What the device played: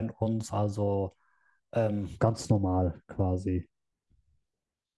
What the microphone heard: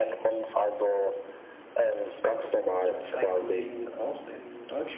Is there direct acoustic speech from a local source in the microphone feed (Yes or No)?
Yes